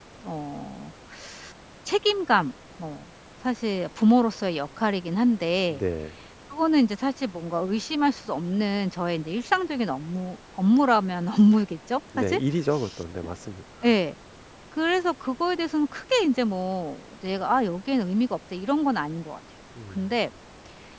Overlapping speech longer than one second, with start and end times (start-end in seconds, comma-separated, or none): none